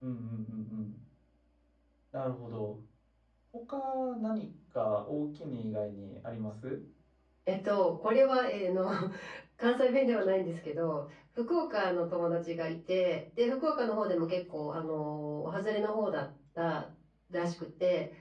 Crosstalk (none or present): none